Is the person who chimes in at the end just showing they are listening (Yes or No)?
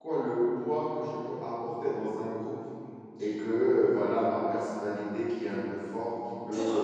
Yes